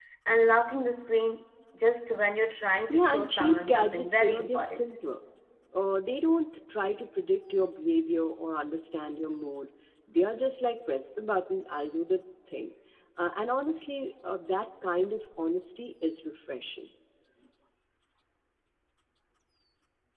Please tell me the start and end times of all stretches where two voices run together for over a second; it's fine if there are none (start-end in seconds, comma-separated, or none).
2.9-4.8